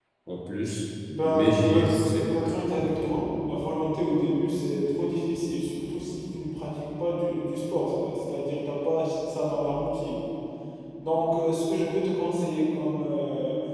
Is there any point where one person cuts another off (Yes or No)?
Yes